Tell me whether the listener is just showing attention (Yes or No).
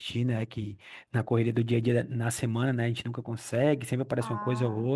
Yes